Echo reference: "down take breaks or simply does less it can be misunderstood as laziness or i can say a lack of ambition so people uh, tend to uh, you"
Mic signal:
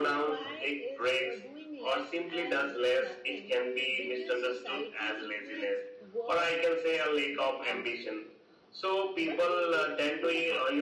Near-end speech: present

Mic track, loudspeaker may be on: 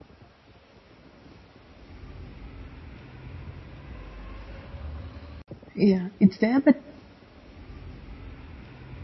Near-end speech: present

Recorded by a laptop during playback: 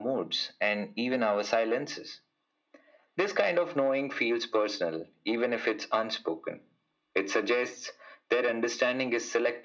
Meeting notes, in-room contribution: none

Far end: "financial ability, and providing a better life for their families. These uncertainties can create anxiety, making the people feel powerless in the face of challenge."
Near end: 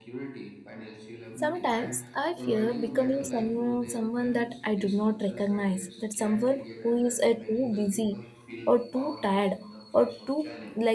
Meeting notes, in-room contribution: present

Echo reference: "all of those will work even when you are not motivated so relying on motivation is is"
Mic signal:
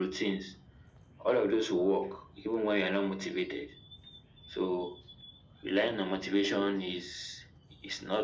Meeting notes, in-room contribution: none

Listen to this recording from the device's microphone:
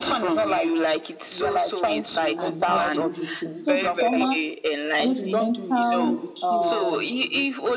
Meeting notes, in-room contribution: present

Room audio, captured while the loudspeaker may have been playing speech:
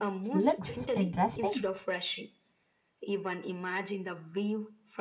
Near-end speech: present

